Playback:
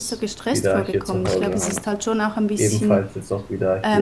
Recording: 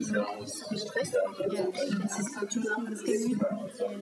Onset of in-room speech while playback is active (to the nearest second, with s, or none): 1 s